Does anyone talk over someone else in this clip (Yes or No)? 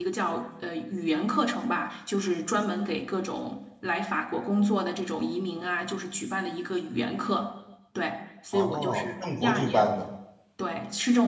Yes